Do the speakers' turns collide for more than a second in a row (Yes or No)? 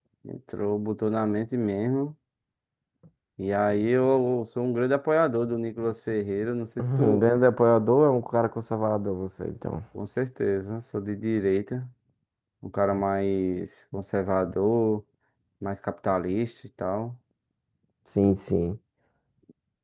No